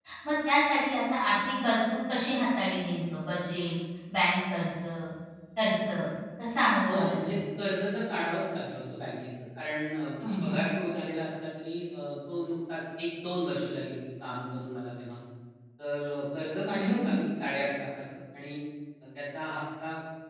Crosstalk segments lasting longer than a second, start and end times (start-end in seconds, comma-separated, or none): none